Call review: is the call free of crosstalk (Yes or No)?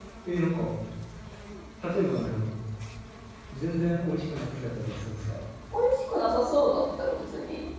Yes